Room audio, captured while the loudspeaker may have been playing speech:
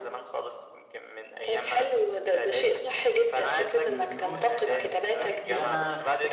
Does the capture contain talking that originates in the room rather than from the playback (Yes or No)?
Yes